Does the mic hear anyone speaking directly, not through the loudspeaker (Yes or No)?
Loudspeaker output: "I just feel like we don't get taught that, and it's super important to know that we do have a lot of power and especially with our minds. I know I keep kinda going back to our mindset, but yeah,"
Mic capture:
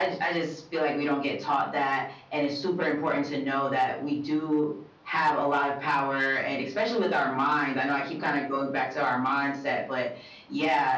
No